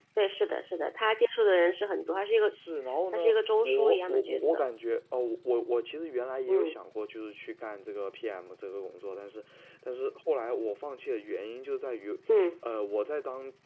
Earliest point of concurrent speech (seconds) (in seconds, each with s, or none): 3.1 s